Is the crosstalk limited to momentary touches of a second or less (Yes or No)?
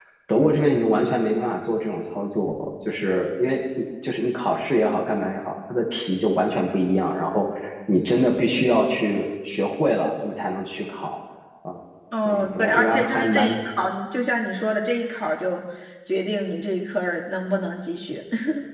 No